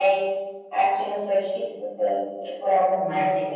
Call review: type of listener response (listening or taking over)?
taking over